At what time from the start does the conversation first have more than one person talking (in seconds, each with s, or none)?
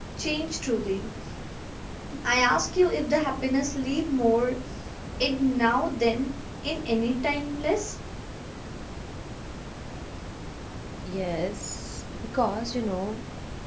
none